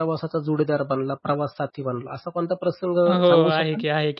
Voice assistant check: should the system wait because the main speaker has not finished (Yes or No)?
No